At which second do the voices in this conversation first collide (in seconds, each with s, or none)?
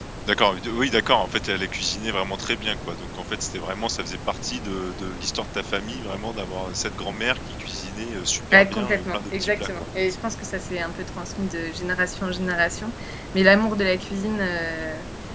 8.5 s